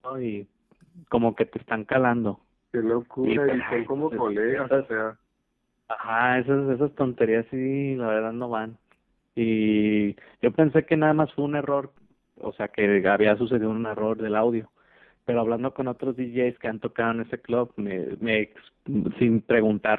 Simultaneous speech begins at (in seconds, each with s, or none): 3.2 s